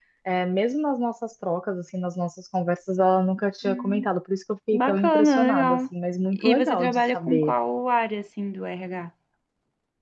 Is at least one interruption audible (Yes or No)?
Yes